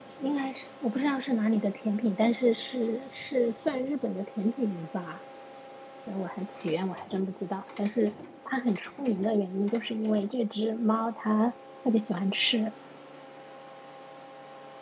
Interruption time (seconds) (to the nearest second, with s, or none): none